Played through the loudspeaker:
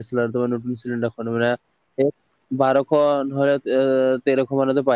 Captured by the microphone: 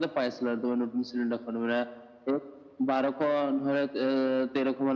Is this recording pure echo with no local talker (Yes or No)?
Yes